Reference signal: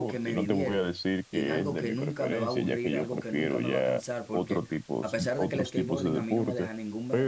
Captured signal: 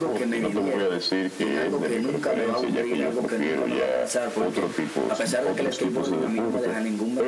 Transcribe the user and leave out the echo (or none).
none